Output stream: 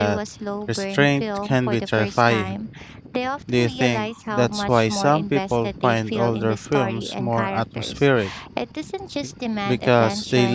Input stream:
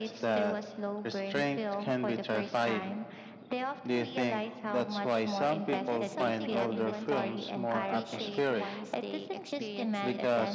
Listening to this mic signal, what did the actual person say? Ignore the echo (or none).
and that's something everyone can appreciate once they experience it